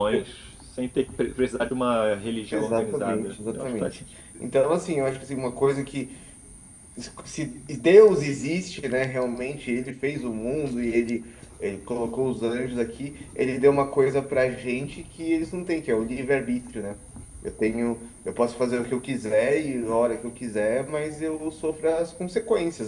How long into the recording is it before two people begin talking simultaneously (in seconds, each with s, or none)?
2.5 s